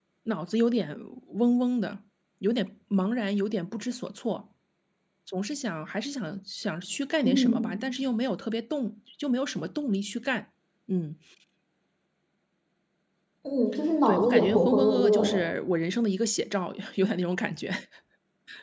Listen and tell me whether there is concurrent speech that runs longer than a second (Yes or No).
Yes